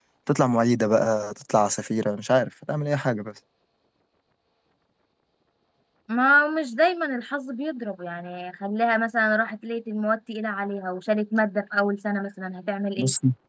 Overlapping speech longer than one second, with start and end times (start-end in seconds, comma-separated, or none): none